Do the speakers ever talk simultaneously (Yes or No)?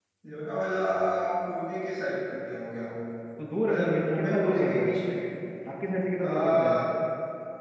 Yes